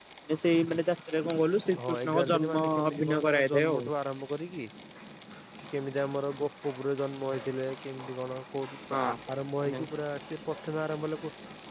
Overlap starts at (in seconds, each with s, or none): 1.8 s